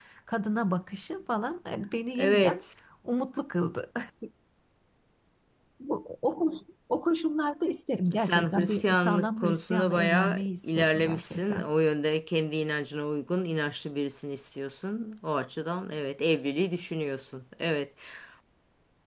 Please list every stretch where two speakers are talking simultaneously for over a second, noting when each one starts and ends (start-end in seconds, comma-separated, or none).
8.2-11.6